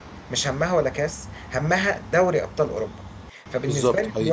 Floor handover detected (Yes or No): No